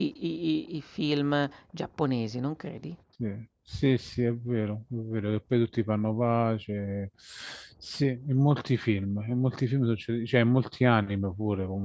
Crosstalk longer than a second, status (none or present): none